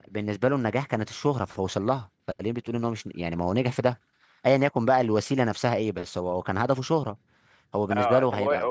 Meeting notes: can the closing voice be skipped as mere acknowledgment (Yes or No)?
No